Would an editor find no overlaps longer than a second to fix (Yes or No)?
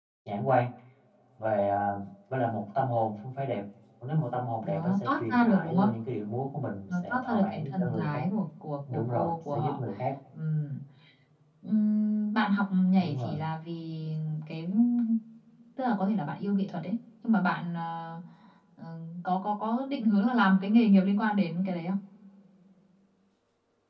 No